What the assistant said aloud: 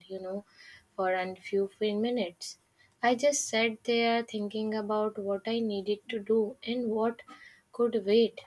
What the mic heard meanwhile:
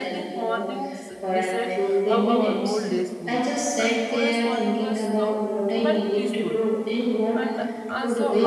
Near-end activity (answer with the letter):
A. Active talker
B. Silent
A